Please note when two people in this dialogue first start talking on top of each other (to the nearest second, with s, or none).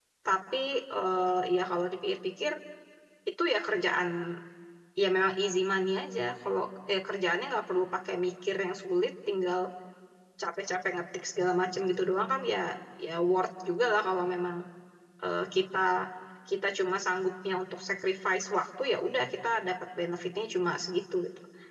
none